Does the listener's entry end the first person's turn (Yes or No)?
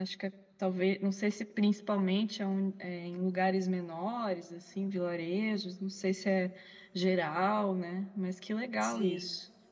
Yes